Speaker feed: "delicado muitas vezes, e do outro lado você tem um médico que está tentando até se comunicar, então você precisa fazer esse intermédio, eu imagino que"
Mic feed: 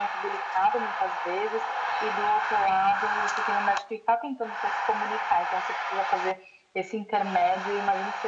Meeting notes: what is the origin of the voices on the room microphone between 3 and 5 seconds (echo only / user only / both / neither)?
echo only